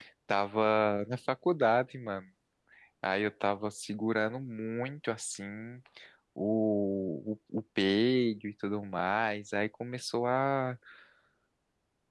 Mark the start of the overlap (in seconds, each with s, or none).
none